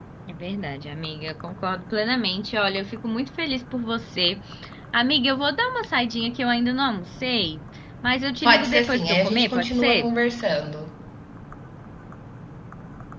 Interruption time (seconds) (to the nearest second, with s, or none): 8 s